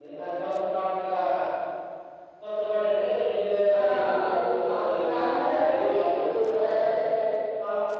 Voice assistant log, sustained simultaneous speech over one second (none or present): present